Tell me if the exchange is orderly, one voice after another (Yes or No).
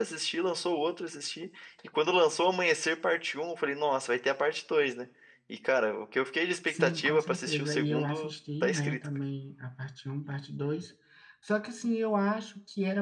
No